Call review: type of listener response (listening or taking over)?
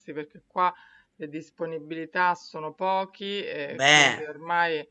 listening